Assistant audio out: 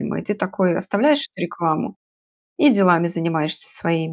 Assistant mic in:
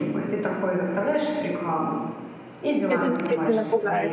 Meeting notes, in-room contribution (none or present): present